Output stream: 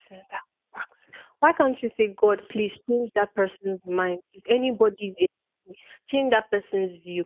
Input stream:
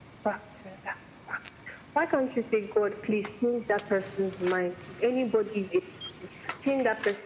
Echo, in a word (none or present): present